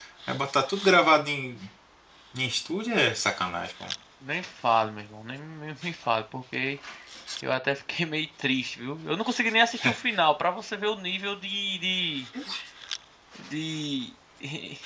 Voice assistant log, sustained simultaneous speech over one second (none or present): none